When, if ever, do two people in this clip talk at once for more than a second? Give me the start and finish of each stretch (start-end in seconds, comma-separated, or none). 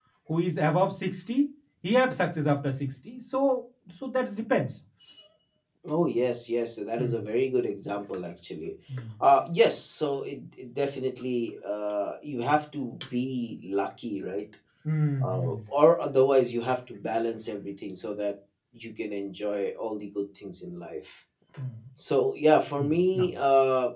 none